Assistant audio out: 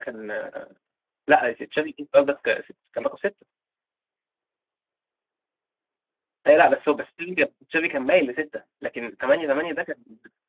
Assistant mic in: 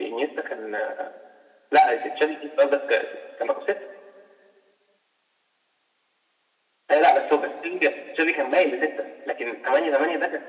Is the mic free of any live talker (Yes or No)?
Yes